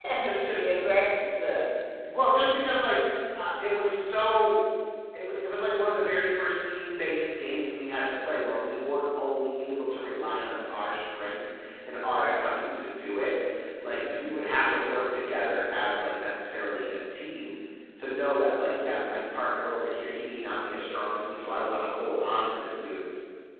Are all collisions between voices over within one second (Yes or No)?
Yes